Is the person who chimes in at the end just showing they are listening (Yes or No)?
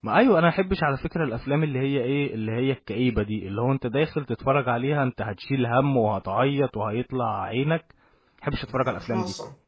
No